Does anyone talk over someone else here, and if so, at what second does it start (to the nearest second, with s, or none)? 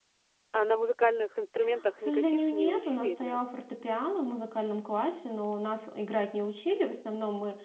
2 s